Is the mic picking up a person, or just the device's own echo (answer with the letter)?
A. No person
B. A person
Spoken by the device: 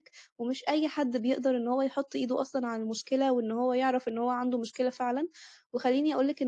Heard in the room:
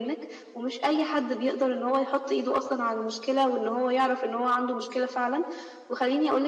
A